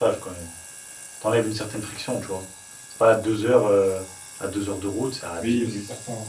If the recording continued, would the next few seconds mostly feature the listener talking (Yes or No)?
Yes